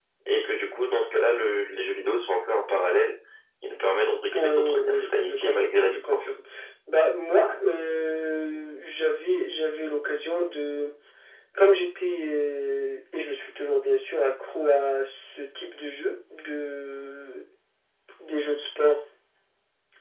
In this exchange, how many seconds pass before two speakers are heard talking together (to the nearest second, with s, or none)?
4 s